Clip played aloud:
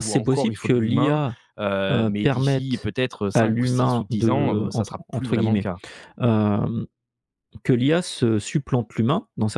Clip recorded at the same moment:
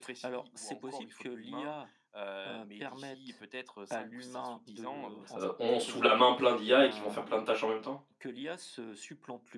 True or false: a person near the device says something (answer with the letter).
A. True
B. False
A